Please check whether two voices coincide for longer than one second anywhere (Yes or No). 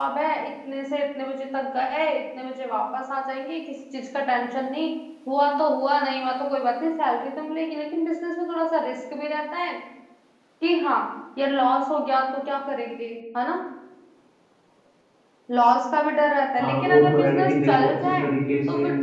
Yes